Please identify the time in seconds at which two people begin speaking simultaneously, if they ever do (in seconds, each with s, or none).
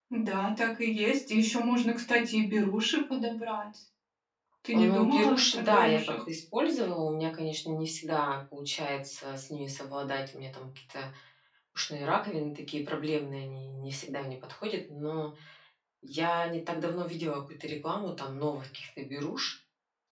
4.7 s